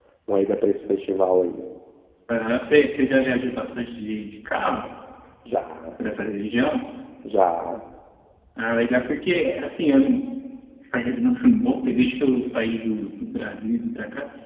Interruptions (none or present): none